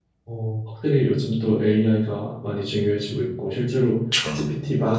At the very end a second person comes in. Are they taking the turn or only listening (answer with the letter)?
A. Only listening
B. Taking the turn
A